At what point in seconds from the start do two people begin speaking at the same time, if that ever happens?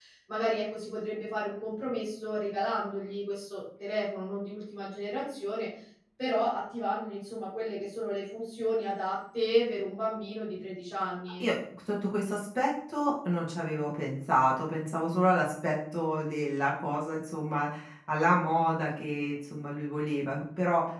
none

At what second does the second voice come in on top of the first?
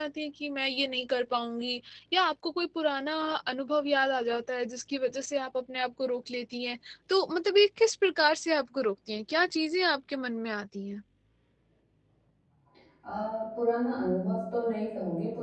none

